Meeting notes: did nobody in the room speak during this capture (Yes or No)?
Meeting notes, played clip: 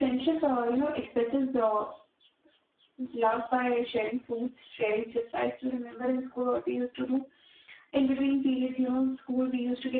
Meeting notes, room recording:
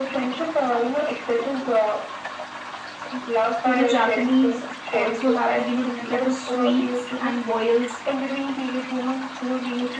No